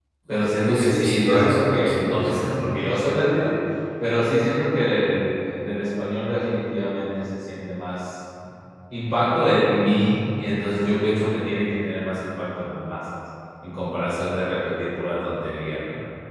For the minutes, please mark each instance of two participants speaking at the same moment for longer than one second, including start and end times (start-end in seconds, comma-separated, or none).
0.6-2.6